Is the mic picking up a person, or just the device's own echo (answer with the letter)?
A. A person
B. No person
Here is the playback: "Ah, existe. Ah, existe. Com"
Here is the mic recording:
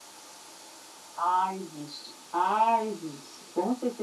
B